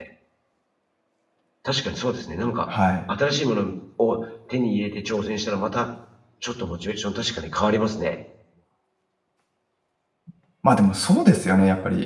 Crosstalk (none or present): none